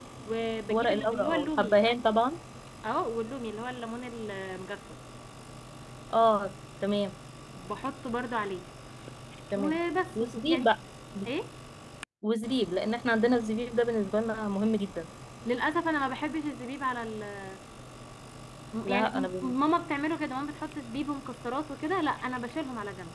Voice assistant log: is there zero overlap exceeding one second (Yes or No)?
No